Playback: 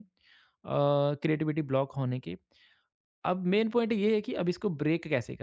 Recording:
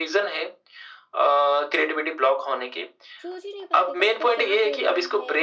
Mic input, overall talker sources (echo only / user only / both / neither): both